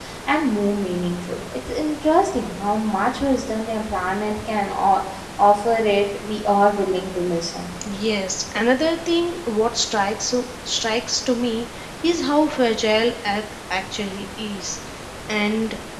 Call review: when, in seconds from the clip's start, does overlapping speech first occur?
none

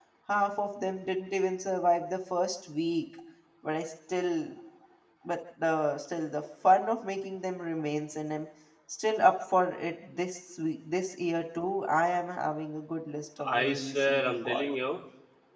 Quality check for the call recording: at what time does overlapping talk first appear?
13.4 s

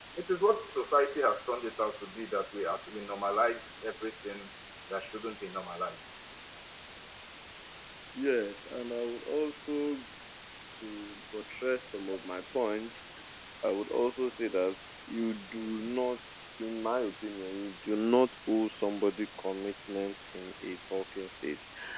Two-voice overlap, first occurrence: none

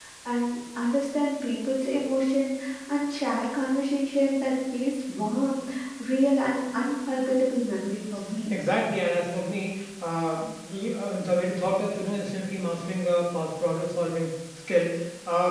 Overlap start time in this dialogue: none

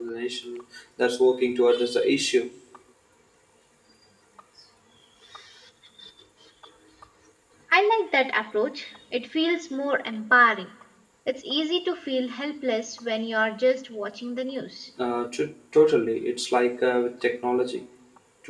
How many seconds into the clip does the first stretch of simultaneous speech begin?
none

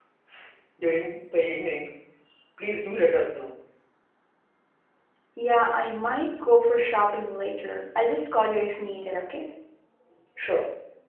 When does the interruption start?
none

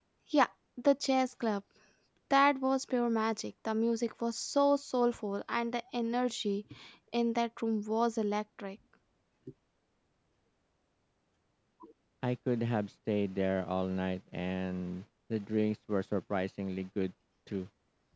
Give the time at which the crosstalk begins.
none

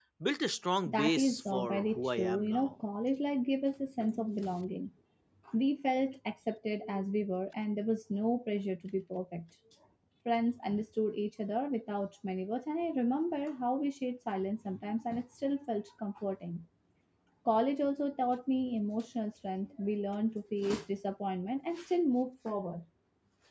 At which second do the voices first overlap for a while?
0.9 s

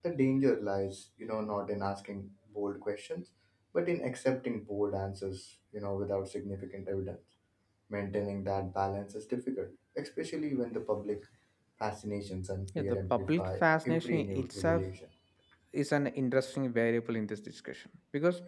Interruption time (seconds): 12.8 s

